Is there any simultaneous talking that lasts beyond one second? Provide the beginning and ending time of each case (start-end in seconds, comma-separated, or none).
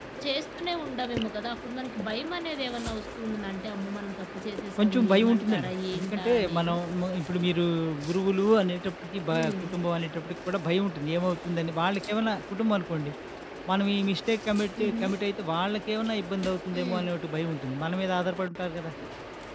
4.8-6.8